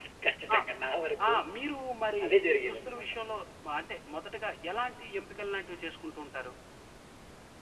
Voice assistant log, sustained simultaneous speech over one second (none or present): none